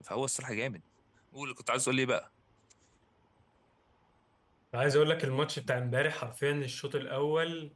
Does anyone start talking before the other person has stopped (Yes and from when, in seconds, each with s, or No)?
No